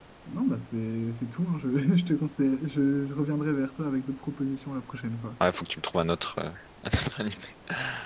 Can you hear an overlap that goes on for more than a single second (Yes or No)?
No